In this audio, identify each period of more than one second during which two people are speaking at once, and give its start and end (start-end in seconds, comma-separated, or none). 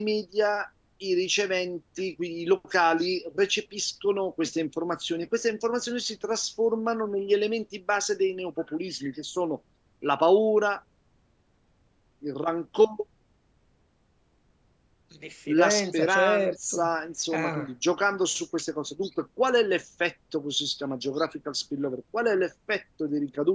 15.5-16.9